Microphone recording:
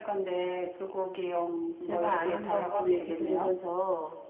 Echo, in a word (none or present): present